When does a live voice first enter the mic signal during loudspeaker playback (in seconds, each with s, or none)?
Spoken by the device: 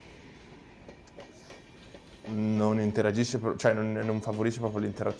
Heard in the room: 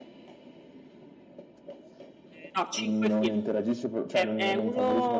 2.5 s